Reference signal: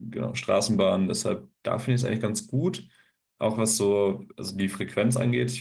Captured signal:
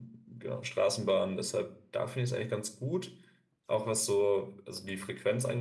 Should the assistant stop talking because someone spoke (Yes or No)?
No